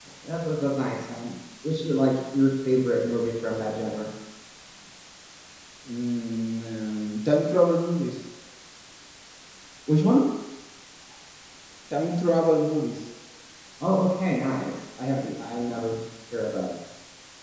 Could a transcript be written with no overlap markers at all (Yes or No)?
Yes